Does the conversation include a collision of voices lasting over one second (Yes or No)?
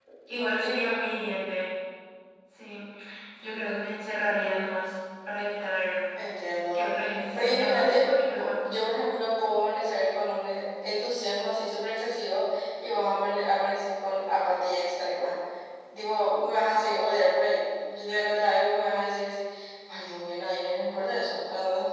Yes